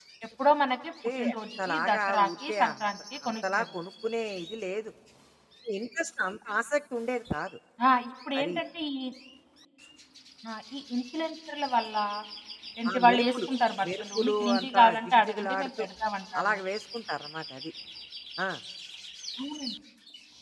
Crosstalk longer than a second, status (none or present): present